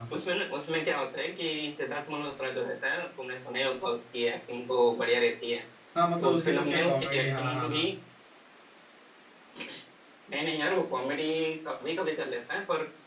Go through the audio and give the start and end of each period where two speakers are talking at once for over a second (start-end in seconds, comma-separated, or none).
6.2-7.8